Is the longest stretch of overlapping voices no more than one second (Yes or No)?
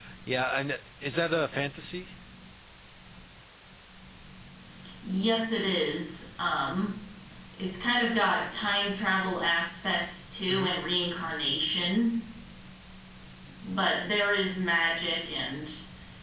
Yes